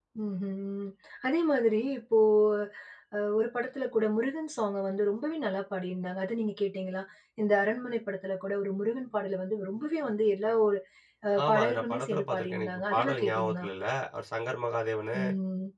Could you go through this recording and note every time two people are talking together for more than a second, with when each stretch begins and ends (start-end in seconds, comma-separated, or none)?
11.4-13.6